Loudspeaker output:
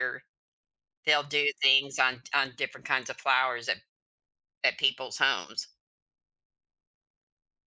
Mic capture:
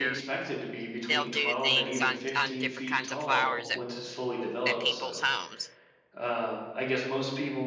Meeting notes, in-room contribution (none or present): present